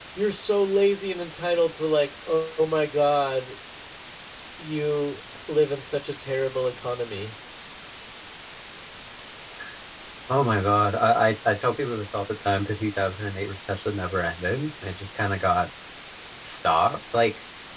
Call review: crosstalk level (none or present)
none